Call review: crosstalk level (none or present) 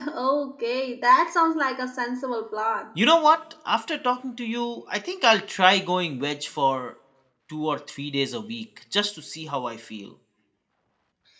none